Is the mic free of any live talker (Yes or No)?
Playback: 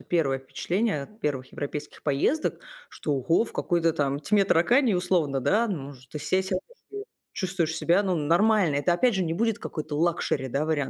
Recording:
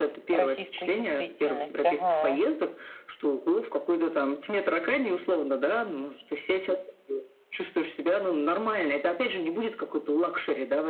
No